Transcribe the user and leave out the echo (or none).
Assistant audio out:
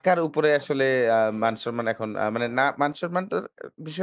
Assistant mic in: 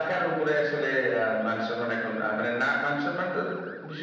none